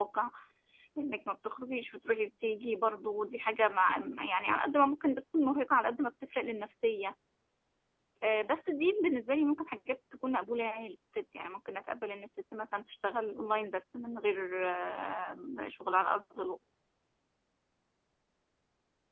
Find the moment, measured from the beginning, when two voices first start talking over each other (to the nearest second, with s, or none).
none